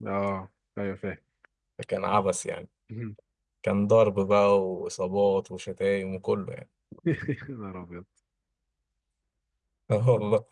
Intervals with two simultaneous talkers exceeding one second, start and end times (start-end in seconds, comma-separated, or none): none